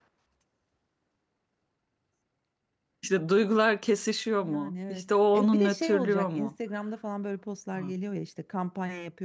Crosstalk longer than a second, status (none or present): present